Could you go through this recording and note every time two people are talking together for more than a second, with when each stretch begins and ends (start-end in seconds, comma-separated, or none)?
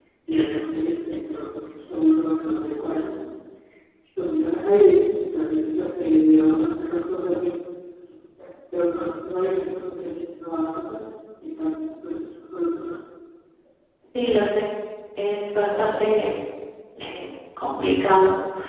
none